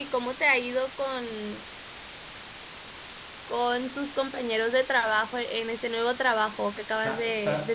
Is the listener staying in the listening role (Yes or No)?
No